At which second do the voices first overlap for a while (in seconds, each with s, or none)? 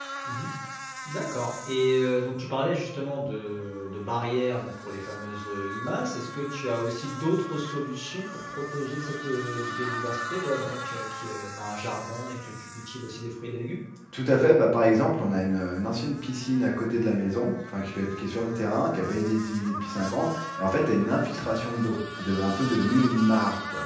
none